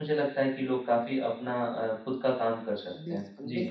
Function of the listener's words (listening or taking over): taking over